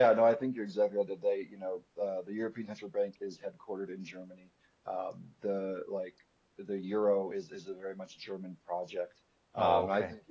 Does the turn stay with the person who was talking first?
Yes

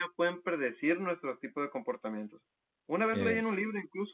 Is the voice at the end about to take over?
No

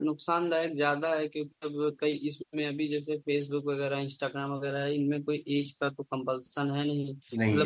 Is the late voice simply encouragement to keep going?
Yes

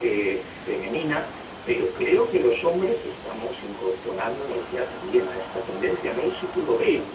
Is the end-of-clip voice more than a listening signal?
Yes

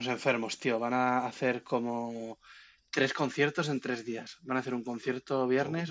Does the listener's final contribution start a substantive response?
No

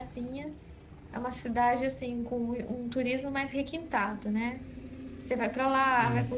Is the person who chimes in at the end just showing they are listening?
Yes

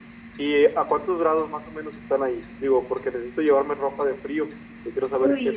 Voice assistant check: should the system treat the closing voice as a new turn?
Yes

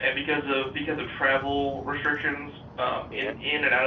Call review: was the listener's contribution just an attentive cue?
Yes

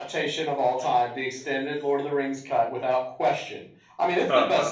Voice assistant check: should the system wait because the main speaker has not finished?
Yes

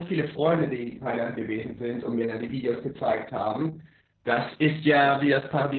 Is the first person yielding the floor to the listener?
No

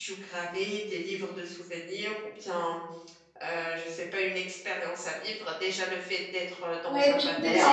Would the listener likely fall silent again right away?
No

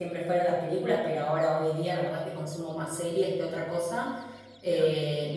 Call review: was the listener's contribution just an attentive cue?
Yes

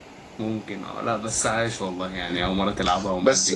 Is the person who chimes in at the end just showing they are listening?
No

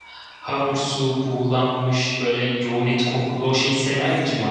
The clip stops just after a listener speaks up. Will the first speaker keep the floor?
No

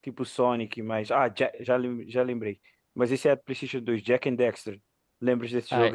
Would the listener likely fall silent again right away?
No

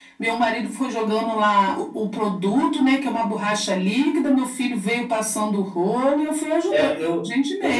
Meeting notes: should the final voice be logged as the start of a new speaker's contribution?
Yes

